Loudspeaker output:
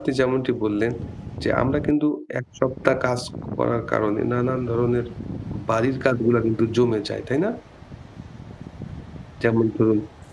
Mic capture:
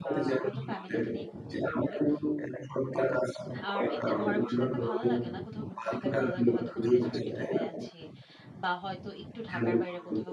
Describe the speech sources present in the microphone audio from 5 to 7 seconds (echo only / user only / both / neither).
both